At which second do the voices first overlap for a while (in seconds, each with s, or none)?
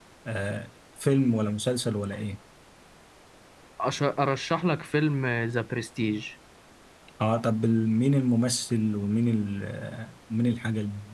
none